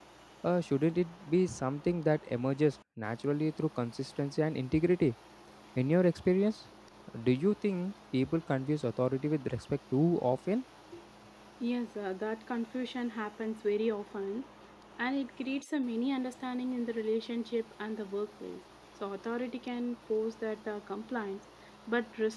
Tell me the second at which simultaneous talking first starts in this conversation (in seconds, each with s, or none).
none